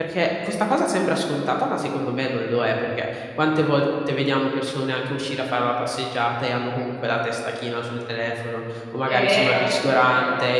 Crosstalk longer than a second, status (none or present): present